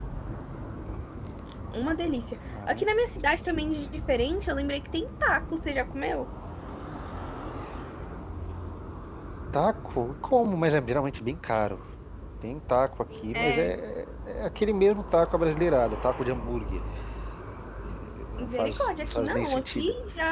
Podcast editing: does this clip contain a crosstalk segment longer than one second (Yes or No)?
Yes